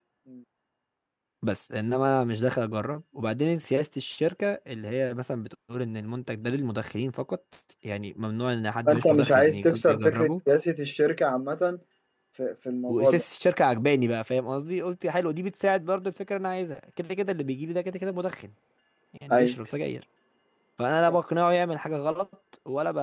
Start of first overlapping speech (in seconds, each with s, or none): 8.9 s